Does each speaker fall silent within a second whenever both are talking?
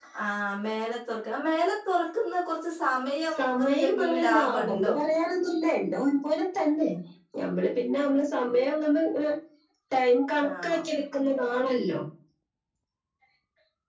No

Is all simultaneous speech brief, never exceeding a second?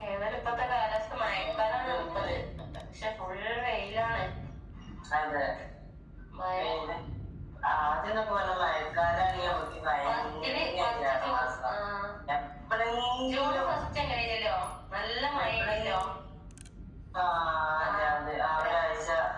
No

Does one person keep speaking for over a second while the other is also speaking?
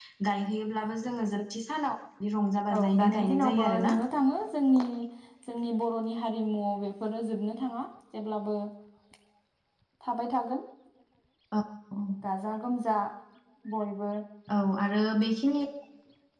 Yes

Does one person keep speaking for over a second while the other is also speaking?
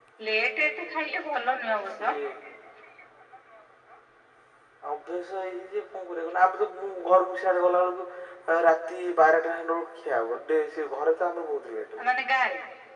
No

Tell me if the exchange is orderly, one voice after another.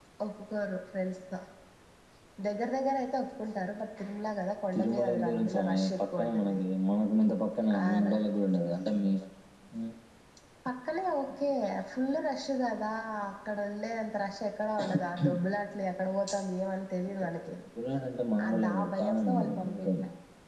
No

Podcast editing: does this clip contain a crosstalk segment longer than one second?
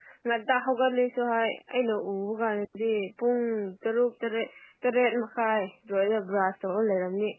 No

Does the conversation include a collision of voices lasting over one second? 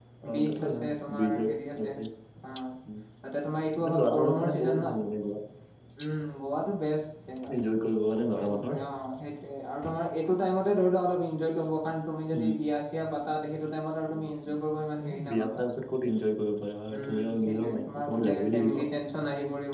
Yes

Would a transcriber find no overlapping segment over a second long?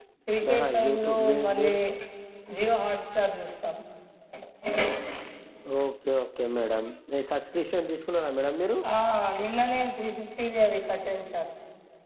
No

